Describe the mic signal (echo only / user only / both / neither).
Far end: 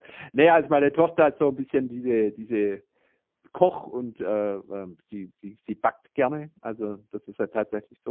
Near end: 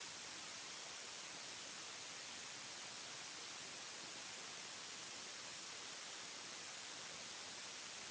neither